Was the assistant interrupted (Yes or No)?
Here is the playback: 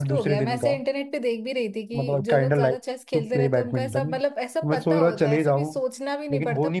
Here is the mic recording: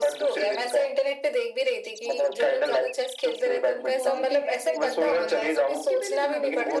Yes